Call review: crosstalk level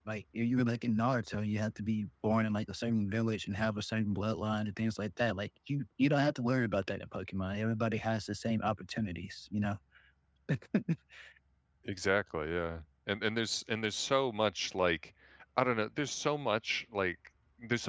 none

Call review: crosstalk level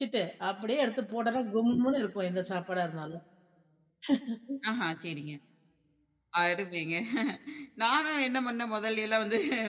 none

